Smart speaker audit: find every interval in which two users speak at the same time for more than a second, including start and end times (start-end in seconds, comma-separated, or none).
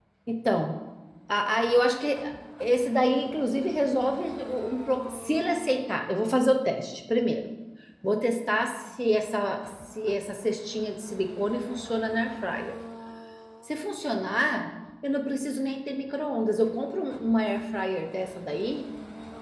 none